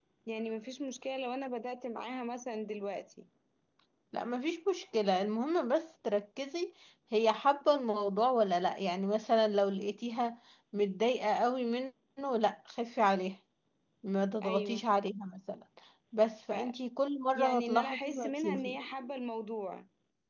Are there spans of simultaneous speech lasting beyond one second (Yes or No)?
Yes